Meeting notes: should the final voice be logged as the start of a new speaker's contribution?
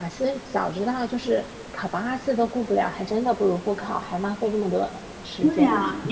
Yes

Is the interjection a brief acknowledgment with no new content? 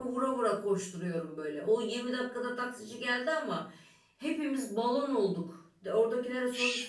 Yes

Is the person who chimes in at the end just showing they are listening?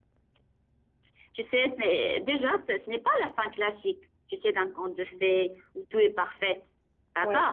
Yes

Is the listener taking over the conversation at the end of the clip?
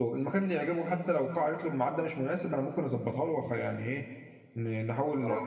No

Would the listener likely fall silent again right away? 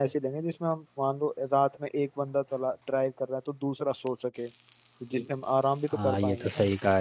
No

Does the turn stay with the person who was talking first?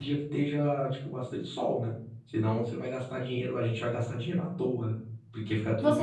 No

